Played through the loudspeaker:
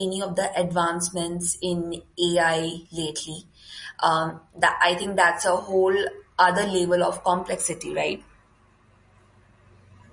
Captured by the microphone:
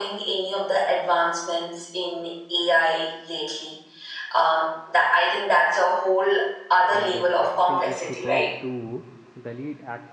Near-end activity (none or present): present